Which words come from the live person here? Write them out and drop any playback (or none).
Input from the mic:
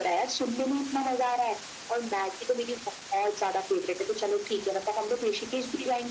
none